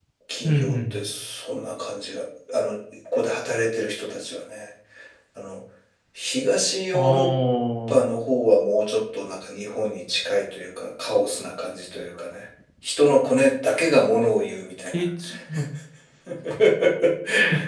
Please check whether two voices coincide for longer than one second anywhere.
No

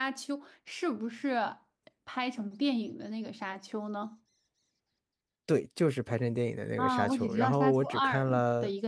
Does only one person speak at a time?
No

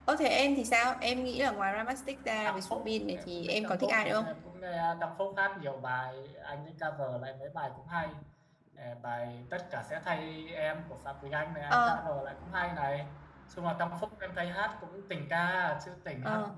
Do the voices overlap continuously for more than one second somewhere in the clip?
Yes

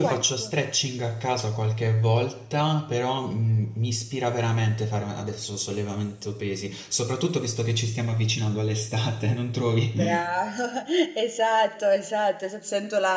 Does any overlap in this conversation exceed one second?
No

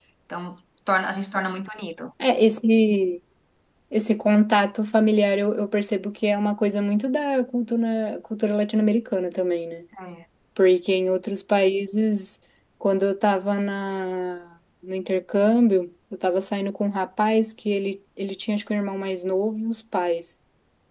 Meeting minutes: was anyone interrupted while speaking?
No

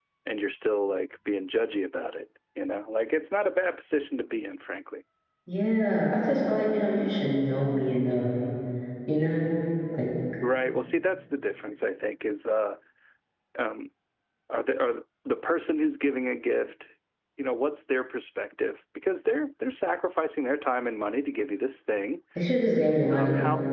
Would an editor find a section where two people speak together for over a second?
No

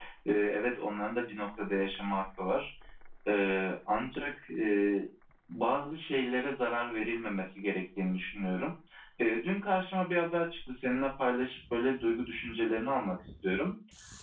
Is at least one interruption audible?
No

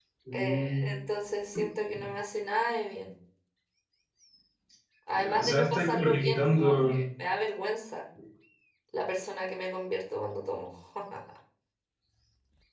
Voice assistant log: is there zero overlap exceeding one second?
No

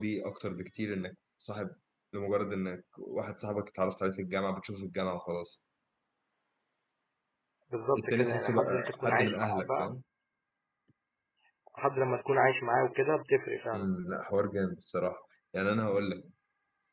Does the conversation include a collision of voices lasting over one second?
Yes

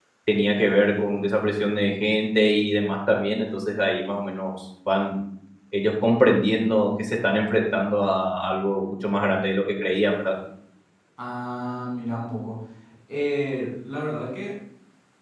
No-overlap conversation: Yes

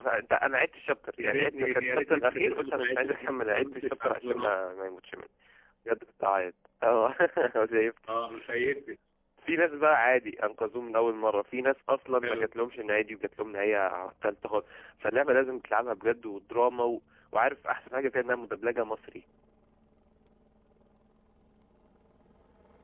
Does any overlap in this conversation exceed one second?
Yes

